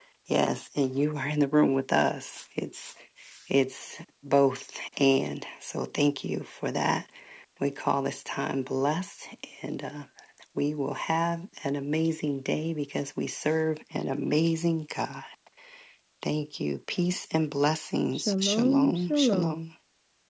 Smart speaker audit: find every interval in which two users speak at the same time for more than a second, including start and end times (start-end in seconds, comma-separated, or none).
18.1-19.6